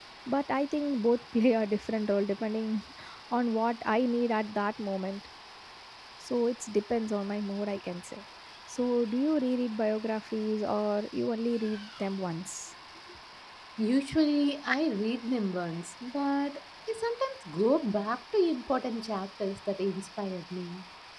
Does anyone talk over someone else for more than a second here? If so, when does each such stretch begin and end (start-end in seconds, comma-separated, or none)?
none